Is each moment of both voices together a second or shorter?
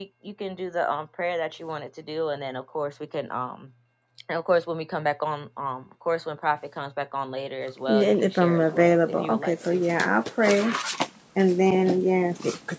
No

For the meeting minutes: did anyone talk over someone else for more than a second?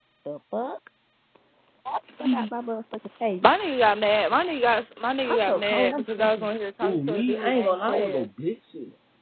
Yes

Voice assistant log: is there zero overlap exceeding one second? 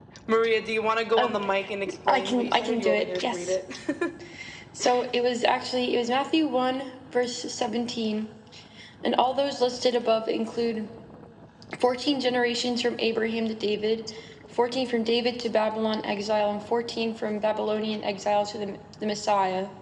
No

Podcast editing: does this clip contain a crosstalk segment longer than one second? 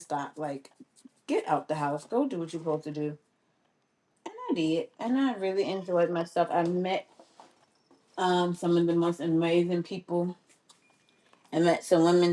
No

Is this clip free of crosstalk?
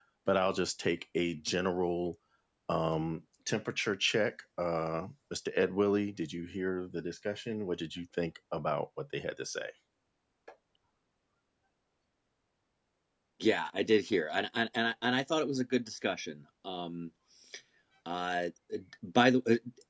Yes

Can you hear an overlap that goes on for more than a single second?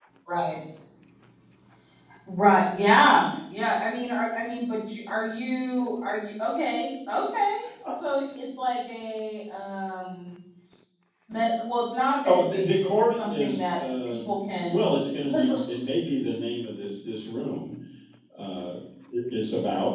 Yes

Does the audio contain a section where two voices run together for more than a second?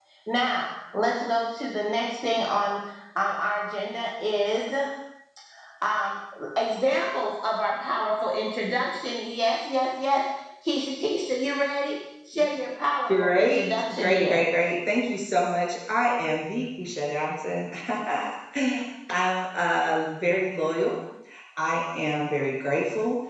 Yes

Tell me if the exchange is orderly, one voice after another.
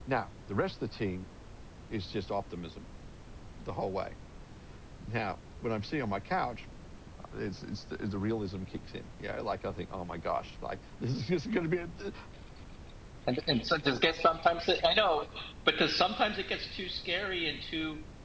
Yes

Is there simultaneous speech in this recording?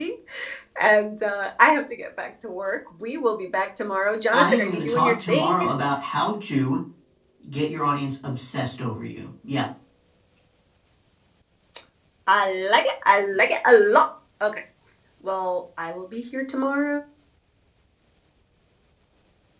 Yes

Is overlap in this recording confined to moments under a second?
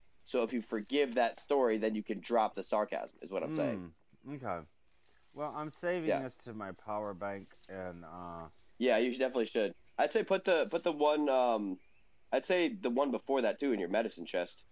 Yes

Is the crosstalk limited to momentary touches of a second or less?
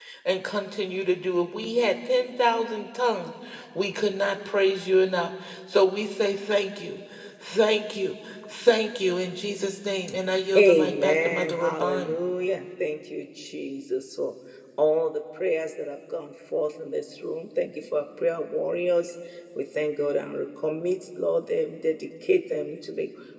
No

